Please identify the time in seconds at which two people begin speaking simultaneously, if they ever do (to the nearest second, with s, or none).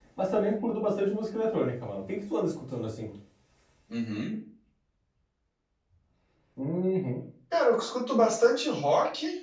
none